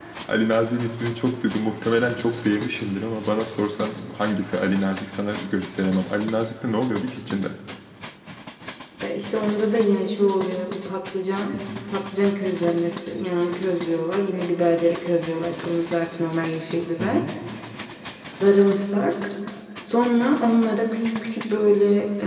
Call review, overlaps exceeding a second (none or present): none